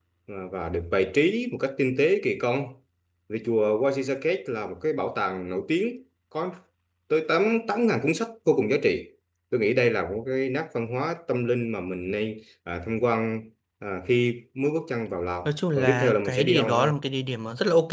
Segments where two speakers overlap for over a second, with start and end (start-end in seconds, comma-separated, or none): 15.4-17.0